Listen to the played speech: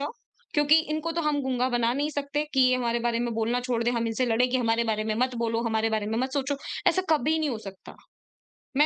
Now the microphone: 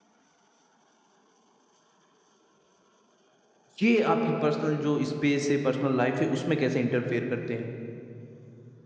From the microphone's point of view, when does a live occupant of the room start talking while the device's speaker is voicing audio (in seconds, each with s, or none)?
3.8 s